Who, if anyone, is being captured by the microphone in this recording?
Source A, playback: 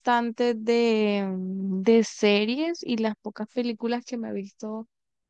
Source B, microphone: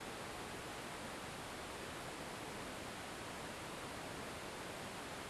neither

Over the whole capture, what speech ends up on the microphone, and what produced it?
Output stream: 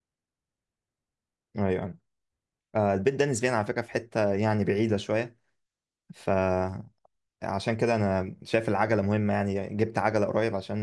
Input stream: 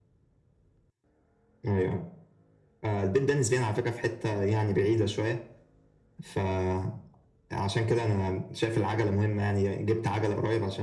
echo only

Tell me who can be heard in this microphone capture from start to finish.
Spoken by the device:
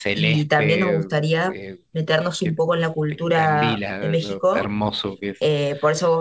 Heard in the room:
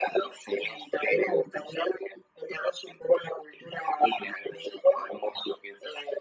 echo only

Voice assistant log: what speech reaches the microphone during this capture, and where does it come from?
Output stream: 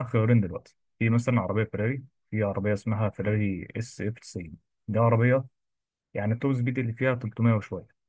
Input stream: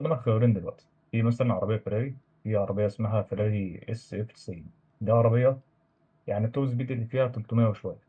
echo only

